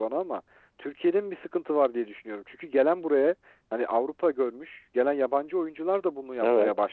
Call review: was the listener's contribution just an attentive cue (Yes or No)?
Yes